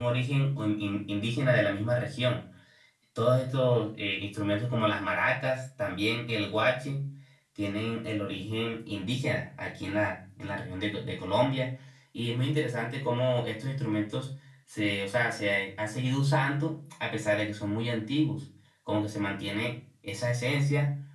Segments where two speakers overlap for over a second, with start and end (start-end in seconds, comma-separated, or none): none